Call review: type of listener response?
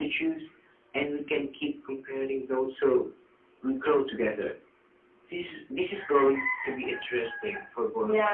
taking over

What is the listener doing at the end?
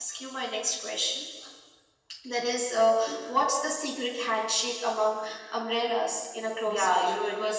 taking over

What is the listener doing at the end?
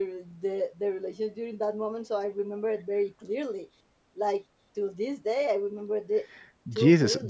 taking over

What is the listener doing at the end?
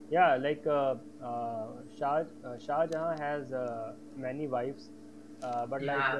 listening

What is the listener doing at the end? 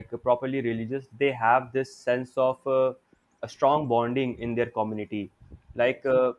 listening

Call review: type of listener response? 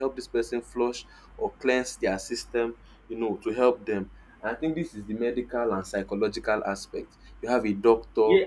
taking over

